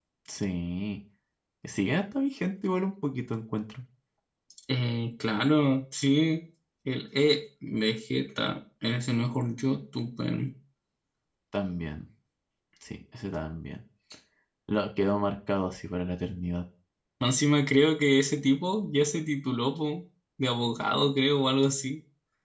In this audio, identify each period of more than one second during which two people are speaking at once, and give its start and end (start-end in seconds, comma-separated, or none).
none